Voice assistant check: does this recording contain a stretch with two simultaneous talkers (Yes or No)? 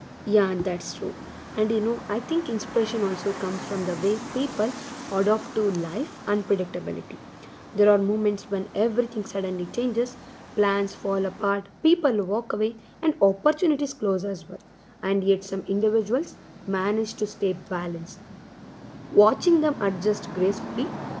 No